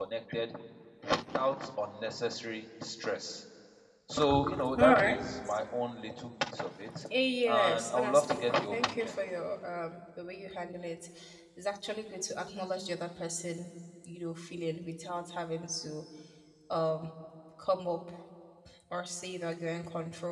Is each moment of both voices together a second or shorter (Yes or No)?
No